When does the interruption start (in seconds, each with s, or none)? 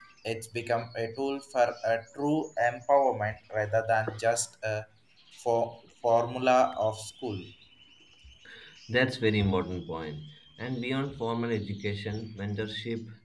none